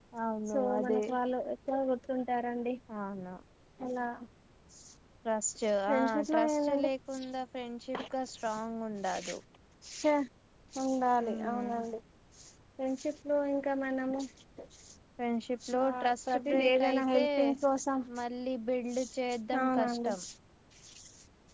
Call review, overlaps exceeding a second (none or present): present